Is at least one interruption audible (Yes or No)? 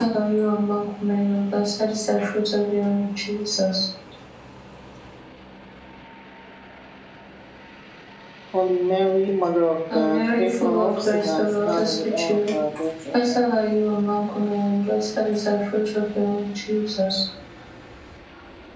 Yes